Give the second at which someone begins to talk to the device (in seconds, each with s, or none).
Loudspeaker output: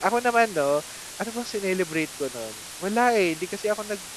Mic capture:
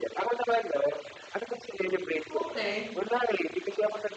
2.3 s